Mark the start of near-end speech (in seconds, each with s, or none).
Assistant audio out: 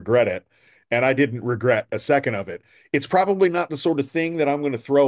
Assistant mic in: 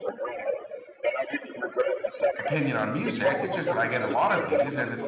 2.4 s